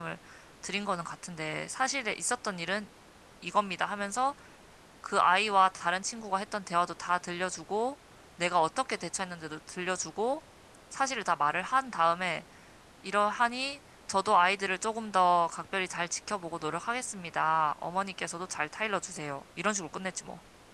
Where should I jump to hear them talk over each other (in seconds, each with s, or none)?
none